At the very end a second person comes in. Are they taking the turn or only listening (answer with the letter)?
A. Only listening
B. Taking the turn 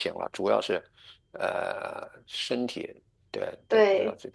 B